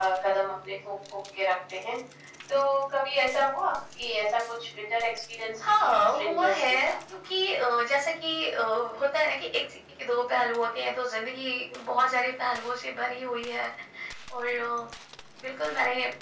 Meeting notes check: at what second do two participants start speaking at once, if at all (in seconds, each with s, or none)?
5.6 s